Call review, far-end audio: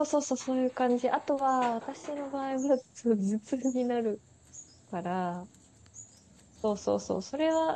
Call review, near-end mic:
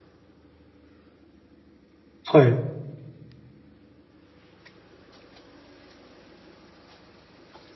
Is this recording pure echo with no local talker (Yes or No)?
No